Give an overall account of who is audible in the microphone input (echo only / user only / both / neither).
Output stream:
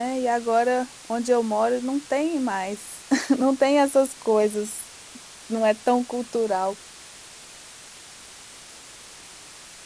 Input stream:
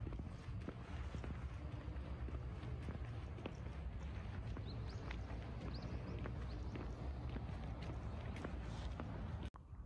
neither